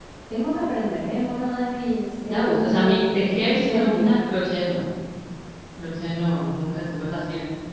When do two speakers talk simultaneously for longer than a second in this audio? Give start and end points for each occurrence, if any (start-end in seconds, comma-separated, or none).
2.3-4.3